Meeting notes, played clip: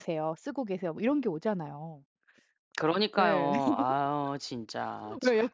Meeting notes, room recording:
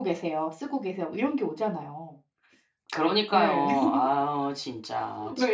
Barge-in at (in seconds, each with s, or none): none